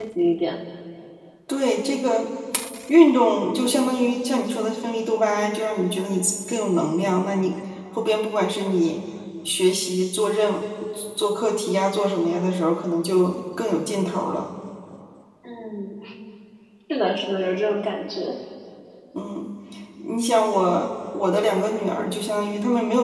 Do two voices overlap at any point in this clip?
No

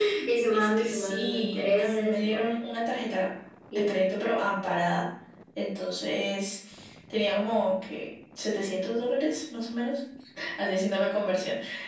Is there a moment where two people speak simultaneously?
Yes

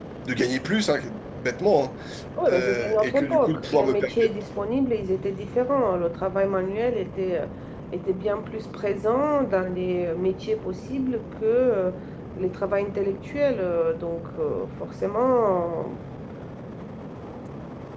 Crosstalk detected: Yes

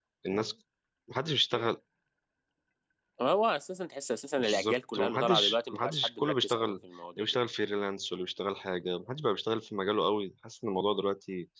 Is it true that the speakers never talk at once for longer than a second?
No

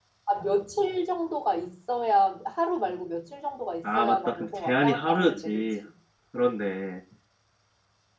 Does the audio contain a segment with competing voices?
Yes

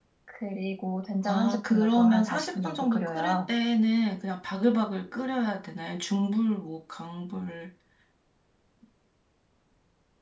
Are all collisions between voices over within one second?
No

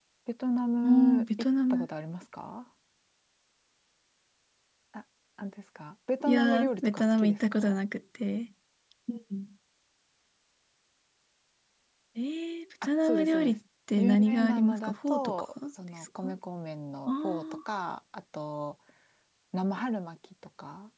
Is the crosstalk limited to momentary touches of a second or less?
No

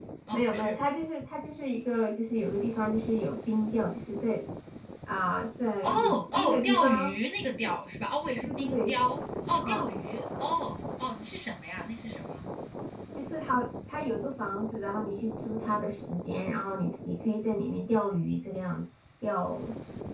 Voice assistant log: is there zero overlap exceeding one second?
No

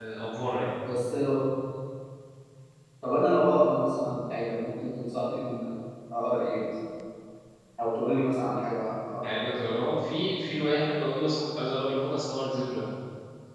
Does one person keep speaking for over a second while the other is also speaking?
No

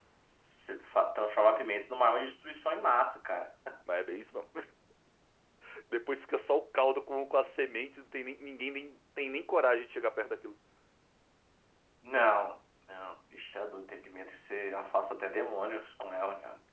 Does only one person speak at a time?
Yes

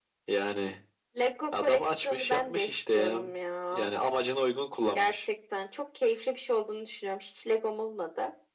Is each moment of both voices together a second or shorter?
No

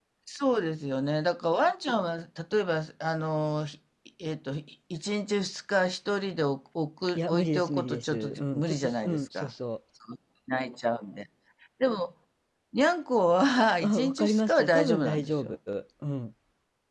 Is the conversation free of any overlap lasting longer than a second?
No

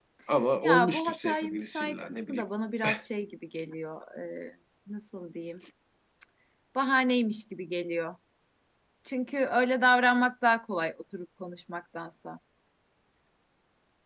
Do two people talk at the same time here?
Yes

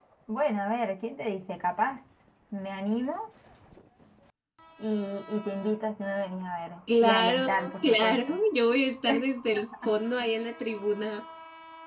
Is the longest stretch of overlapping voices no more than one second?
No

